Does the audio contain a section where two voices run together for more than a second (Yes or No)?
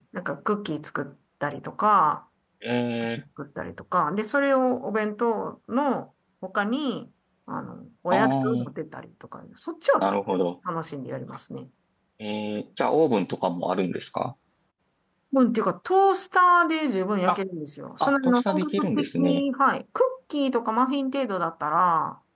Yes